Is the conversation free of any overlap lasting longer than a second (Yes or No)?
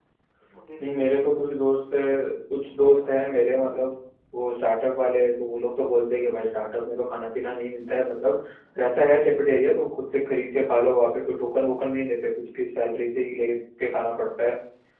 No